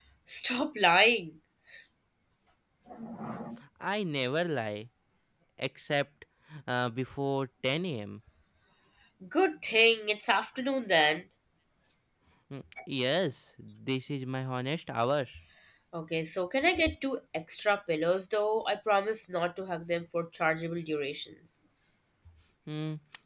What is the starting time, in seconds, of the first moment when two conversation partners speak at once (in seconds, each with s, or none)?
none